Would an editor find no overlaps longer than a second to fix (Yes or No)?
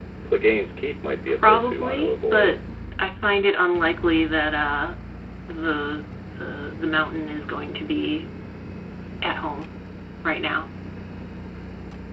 No